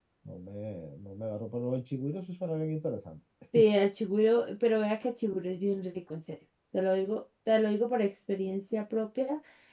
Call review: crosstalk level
none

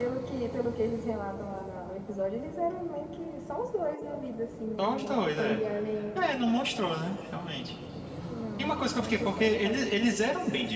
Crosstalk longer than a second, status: present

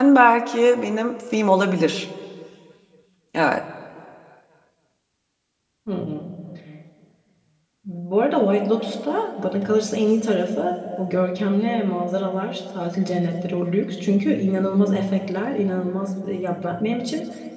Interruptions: none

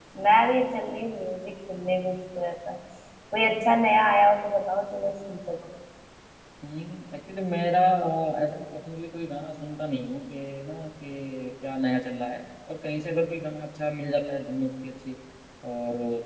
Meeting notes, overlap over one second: none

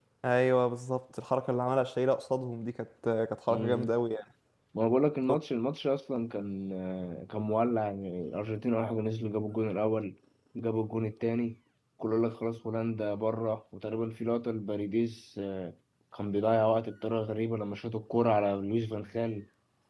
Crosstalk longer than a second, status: none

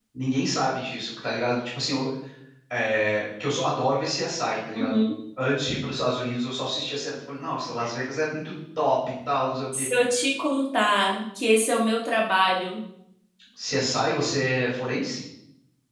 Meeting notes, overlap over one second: none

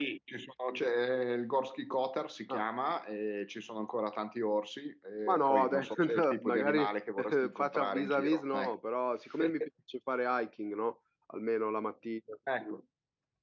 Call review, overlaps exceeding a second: present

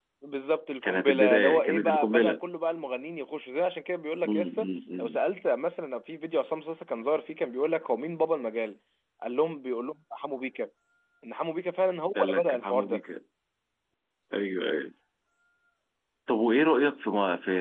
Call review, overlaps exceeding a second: present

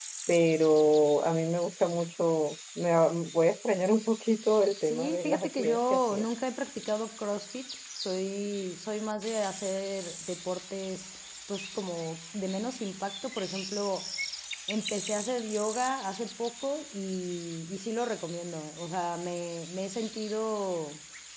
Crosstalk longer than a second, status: present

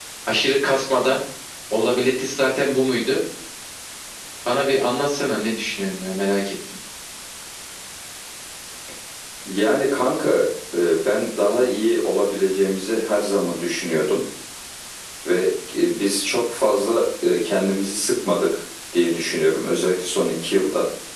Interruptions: none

